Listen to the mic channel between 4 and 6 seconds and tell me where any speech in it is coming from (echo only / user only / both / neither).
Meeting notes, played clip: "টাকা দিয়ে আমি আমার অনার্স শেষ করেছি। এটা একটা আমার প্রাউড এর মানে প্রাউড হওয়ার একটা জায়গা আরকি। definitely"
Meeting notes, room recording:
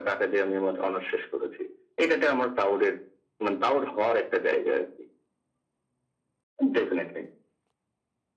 echo only